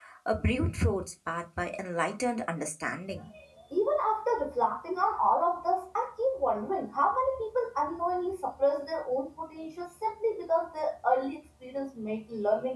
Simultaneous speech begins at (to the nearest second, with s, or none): none